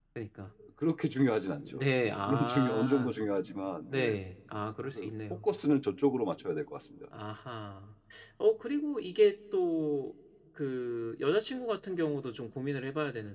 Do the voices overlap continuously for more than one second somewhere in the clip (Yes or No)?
Yes